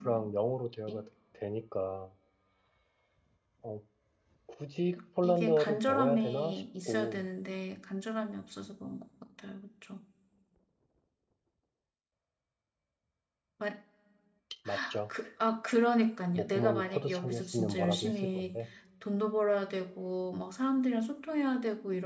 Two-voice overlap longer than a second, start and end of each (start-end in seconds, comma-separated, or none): 5.2-7.2, 16.4-18.6